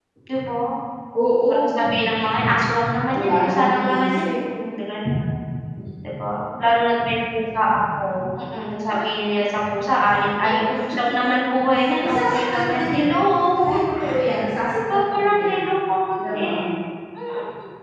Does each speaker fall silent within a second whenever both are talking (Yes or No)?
No